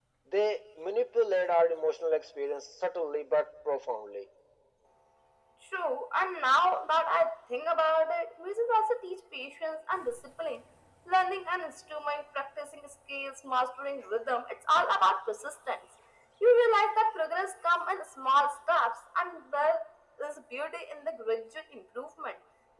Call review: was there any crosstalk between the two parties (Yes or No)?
No